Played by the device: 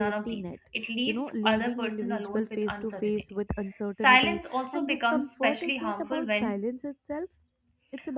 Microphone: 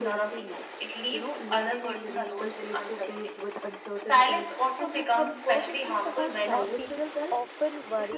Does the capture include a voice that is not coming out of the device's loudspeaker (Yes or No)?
Yes